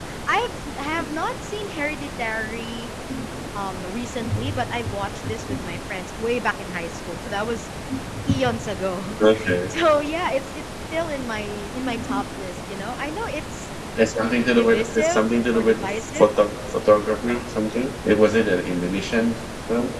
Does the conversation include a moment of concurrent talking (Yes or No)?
Yes